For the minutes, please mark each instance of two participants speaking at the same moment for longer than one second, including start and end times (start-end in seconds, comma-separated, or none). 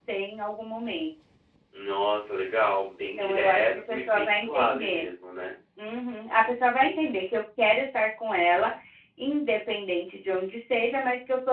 3.2-5.1